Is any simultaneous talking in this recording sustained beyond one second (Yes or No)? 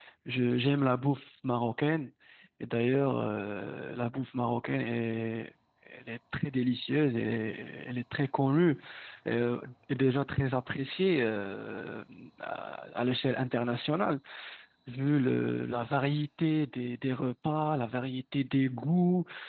No